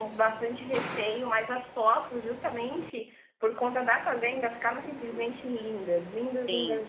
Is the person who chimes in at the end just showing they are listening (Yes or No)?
No